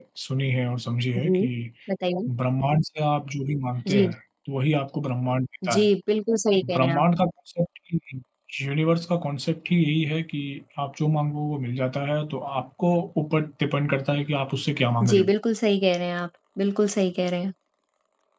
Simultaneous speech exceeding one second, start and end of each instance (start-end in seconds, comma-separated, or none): none